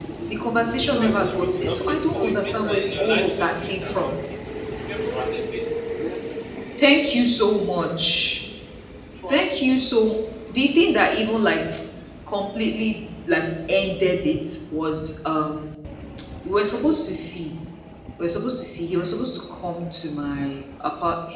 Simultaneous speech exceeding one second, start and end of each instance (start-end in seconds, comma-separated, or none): 0.9-4.1